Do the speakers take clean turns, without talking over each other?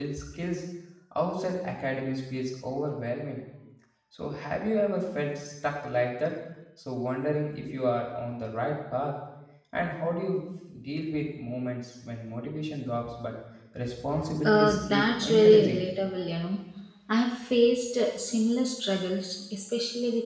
No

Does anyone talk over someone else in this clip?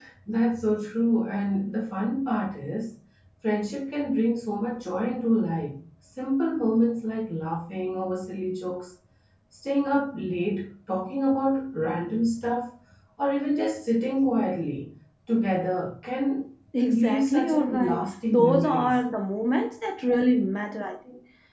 Yes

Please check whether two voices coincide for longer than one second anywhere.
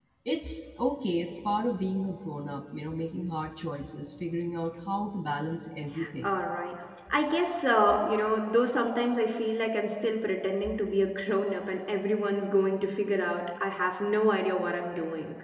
No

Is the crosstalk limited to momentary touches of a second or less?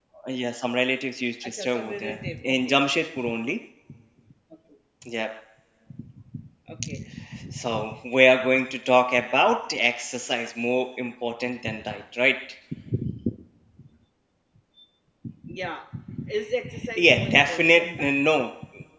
No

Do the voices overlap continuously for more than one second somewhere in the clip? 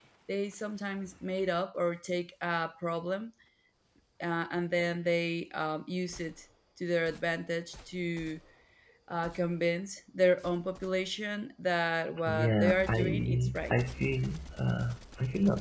Yes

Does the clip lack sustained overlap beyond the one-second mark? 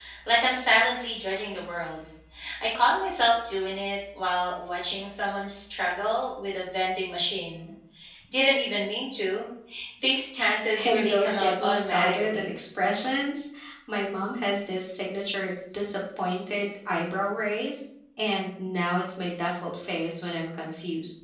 No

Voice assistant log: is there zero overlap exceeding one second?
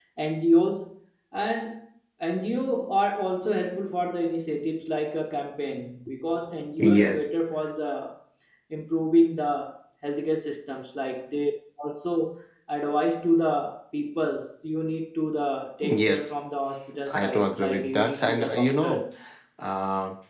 No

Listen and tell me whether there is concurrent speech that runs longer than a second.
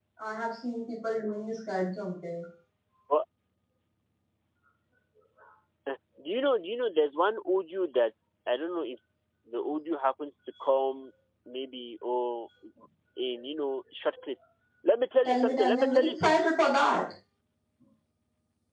Yes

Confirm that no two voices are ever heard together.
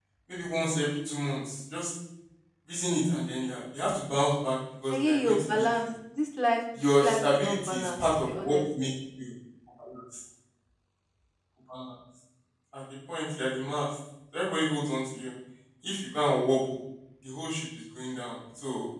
No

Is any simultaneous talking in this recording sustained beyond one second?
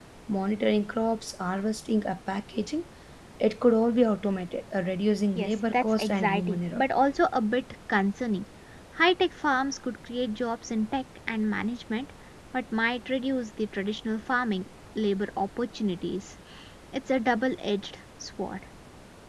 Yes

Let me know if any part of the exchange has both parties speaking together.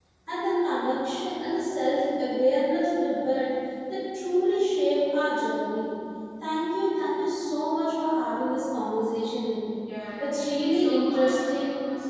Yes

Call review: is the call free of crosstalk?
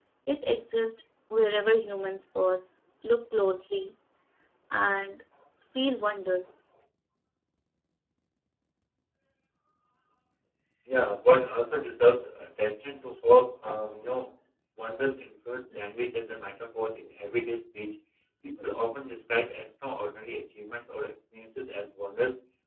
Yes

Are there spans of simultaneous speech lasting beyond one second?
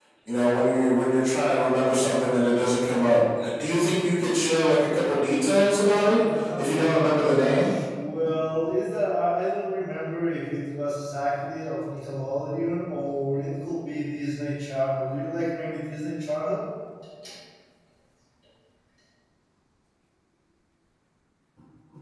Yes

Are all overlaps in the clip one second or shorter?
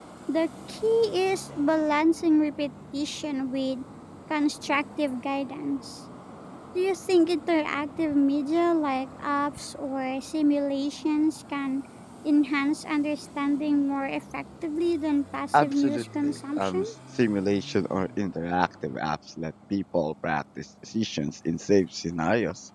No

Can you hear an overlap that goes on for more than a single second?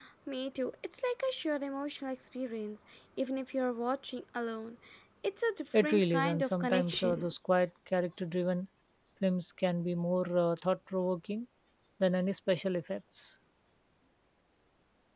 Yes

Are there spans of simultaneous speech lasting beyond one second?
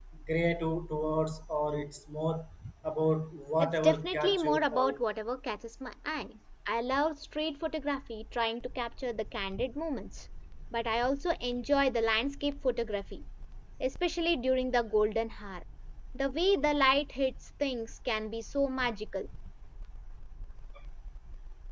Yes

